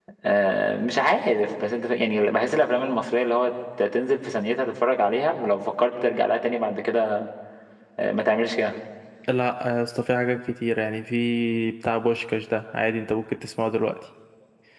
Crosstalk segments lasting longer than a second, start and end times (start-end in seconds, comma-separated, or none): none